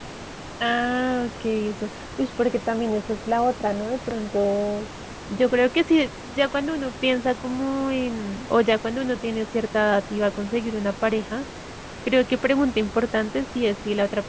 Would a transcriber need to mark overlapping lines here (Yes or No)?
No